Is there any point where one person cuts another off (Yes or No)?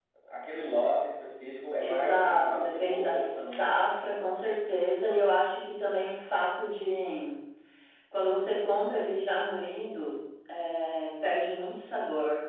Yes